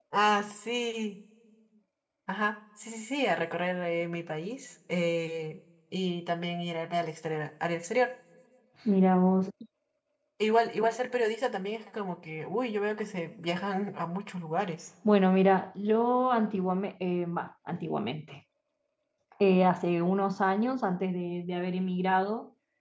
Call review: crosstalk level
none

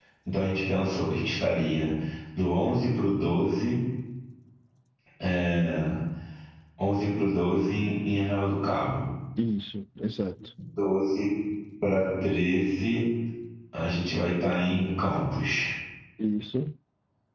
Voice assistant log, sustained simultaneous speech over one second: none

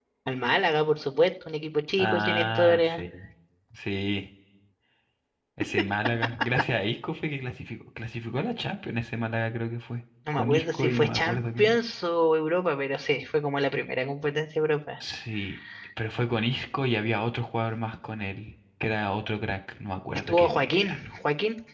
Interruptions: present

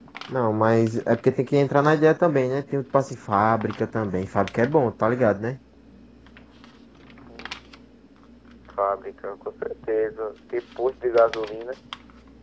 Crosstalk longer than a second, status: none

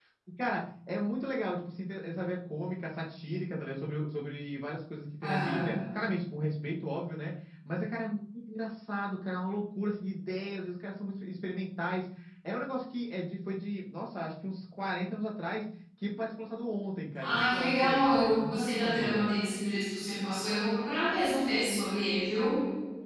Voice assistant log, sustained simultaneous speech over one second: present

